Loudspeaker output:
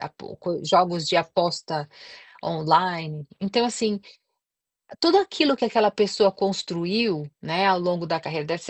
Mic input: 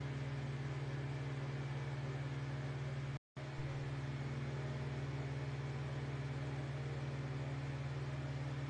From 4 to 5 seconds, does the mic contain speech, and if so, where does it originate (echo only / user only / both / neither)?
neither